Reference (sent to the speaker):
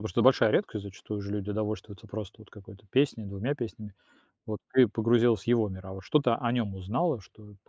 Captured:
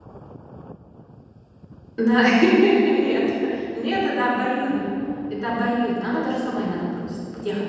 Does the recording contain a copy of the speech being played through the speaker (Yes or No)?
No